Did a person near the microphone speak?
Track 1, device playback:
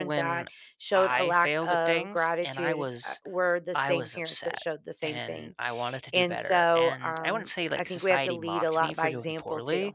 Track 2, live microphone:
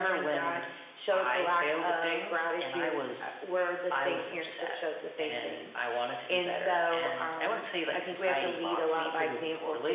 No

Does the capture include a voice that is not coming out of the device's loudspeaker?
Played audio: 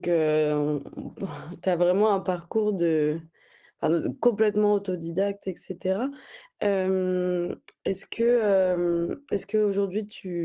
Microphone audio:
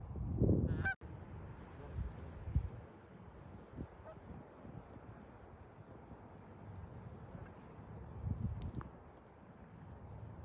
No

